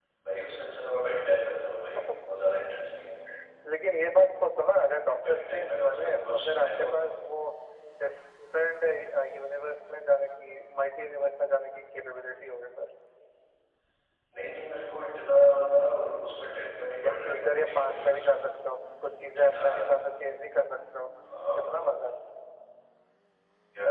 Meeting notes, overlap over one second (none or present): present